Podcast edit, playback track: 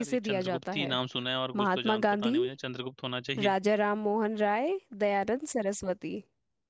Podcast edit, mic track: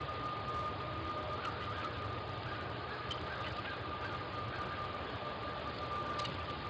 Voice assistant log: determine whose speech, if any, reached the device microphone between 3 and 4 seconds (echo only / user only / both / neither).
neither